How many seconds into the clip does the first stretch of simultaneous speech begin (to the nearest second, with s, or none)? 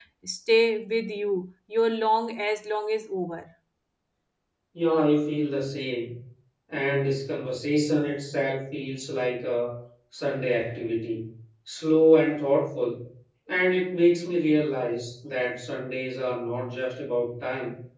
none